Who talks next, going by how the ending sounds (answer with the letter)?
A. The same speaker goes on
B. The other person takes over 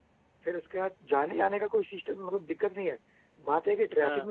A